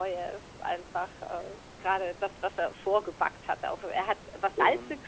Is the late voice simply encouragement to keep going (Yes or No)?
Yes